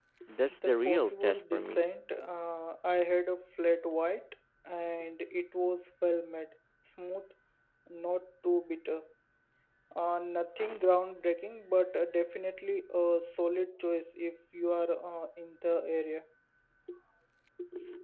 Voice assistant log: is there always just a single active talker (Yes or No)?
No